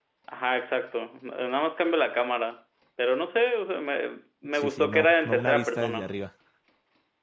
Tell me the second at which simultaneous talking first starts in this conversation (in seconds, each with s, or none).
4.5 s